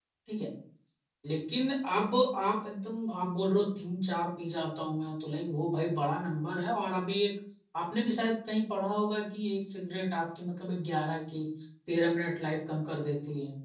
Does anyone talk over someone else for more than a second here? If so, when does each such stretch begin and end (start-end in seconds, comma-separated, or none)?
none